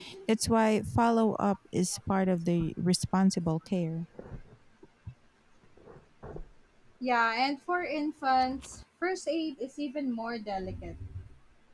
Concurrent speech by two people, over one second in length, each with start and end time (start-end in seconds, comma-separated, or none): none